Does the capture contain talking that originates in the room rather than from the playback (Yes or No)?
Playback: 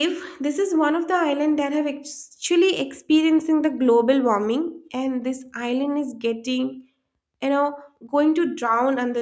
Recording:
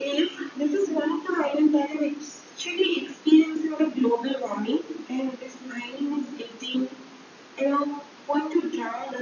No